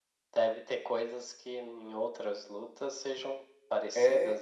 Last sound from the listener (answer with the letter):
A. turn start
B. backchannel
A